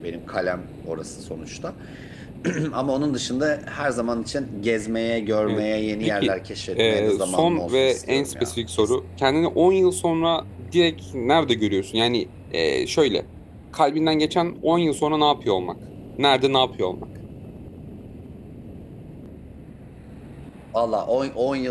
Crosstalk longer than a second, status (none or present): present